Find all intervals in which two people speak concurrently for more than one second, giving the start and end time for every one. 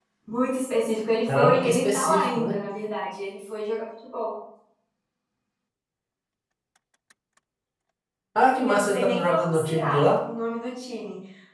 1.3-2.5, 8.5-10.1

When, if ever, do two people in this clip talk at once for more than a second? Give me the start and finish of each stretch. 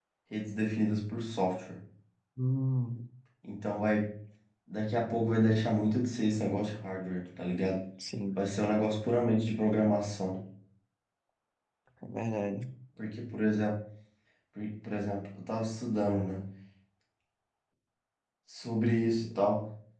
none

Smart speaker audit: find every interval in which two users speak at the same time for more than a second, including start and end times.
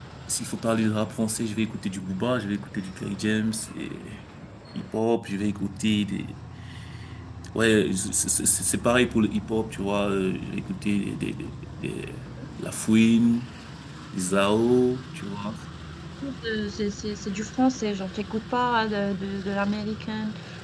none

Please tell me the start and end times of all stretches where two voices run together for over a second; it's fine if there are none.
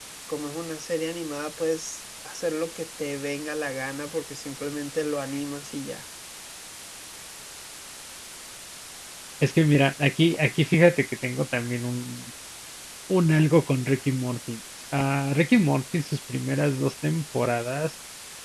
none

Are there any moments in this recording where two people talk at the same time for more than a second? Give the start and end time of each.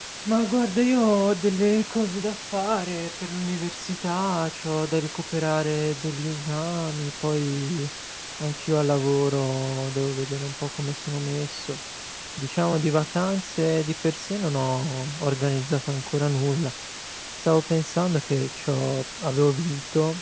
none

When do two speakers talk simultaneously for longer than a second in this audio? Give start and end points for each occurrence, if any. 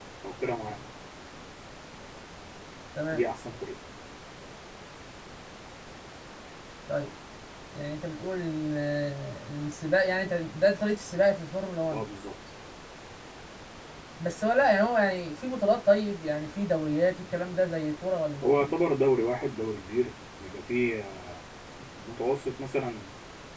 none

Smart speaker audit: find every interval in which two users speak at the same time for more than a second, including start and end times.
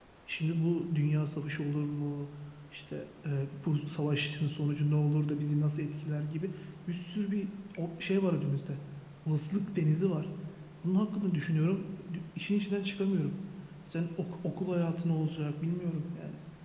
none

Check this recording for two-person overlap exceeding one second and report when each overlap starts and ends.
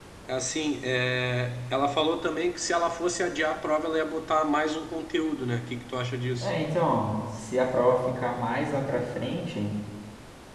none

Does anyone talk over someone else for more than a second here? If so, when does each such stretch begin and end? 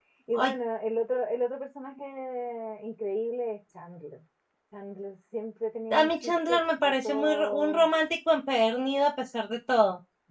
5.9-7.9

